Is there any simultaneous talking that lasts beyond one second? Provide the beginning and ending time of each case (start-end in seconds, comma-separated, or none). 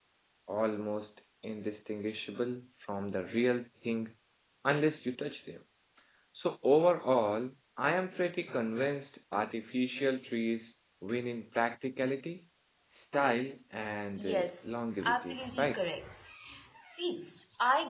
14.2-15.8